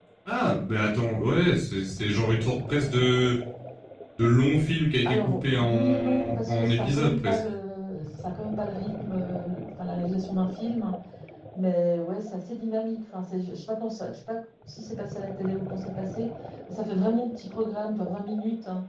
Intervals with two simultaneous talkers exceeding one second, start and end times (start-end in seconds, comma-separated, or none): 5.0-7.4